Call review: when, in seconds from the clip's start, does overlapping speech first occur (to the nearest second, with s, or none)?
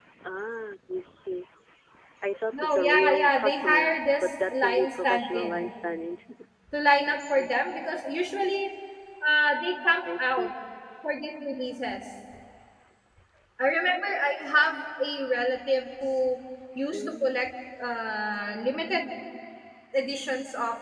3 s